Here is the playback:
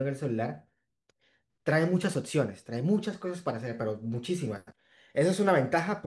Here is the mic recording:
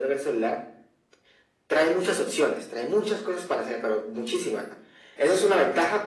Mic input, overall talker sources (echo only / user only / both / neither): echo only